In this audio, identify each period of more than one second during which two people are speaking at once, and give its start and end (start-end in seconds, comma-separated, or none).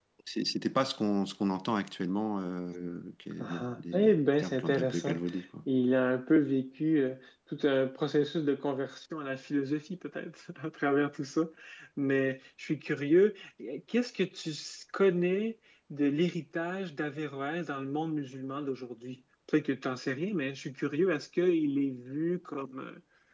3.4-5.2